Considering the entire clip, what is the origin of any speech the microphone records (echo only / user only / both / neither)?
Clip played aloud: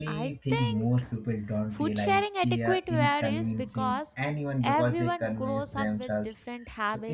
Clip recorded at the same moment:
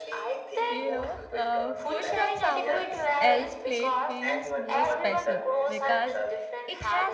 both